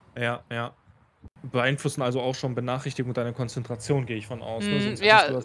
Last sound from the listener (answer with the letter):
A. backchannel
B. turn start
B